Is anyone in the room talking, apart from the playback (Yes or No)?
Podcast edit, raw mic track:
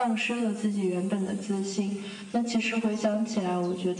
No